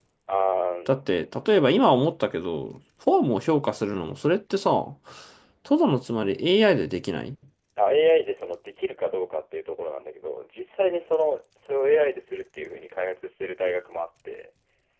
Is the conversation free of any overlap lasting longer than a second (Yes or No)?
Yes